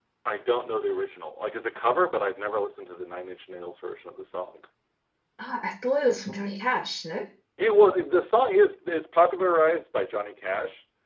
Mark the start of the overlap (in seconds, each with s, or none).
none